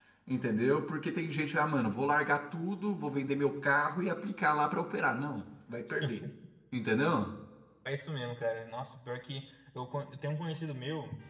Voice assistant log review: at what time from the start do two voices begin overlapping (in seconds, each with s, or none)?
none